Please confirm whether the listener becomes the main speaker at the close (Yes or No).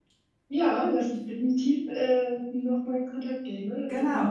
Yes